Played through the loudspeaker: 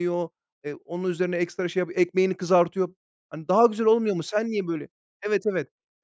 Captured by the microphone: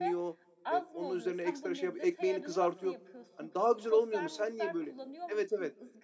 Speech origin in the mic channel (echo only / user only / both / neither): both